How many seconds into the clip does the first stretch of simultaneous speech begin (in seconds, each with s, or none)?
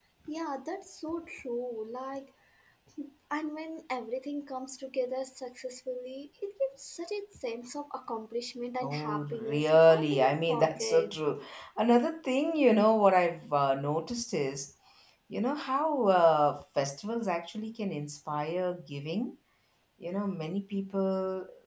8.8 s